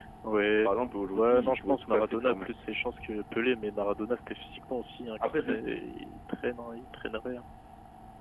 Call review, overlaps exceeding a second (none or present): present